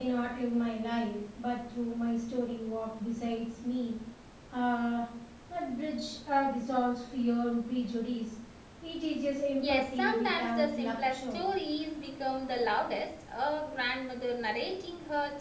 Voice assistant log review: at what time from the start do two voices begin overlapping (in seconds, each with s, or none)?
9.6 s